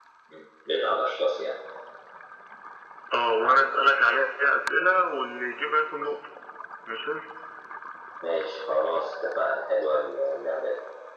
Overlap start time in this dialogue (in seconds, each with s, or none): none